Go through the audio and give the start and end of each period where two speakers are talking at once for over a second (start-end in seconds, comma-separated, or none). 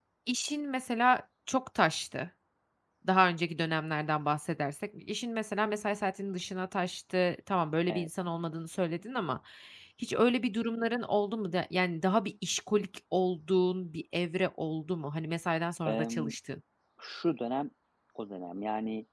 none